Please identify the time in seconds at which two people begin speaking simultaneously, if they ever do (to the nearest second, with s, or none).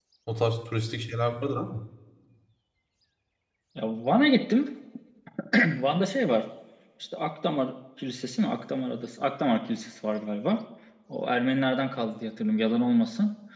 none